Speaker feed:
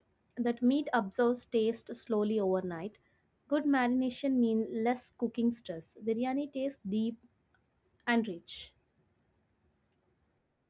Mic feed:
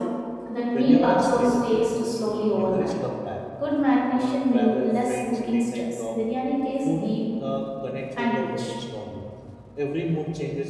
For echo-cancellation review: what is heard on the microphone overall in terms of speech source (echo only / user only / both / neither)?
both